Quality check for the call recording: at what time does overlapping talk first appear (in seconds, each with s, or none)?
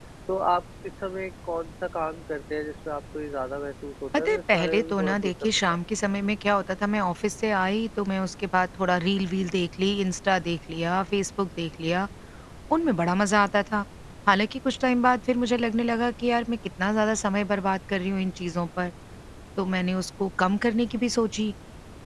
4.1 s